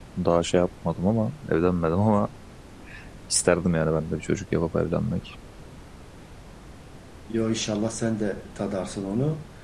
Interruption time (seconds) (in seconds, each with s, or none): none